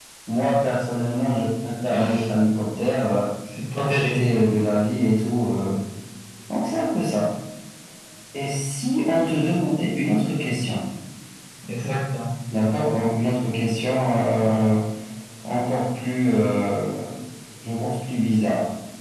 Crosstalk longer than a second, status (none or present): none